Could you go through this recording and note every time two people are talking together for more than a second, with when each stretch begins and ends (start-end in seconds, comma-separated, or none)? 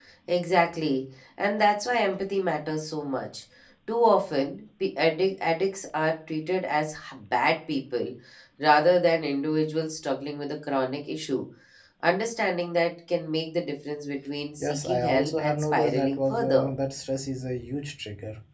14.6-16.7